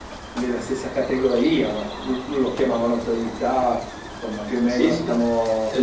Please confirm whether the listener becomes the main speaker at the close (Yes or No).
Yes